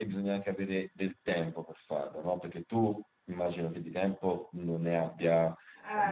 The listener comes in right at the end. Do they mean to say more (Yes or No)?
Yes